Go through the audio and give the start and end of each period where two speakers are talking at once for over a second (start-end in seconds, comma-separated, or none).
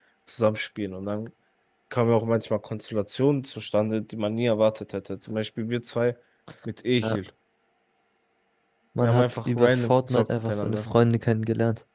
9.0-10.9